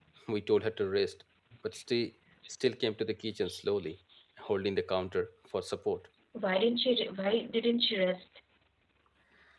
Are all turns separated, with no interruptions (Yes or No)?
Yes